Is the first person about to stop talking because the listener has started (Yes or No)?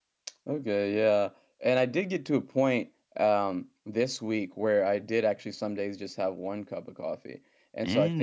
No